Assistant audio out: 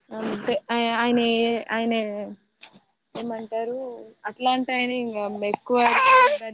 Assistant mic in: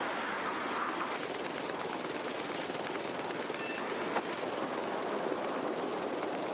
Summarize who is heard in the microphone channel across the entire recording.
neither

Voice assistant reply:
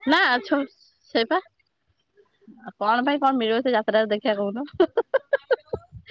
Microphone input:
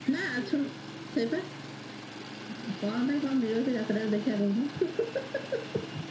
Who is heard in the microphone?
echo only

